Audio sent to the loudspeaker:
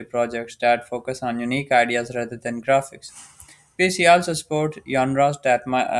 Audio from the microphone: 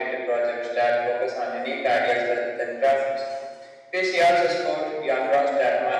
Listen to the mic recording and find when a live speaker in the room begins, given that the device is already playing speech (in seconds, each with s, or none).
none